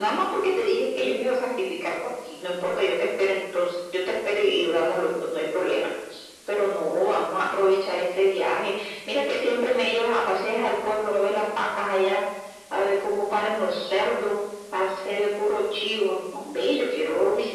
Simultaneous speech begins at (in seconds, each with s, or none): none